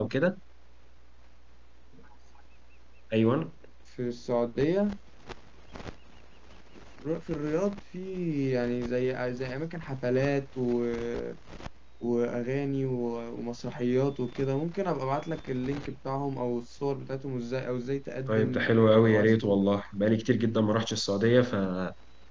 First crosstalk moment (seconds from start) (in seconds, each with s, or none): 18.3 s